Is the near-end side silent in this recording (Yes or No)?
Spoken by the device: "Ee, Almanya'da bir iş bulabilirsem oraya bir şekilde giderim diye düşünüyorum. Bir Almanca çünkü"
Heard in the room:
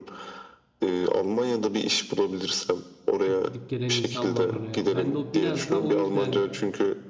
No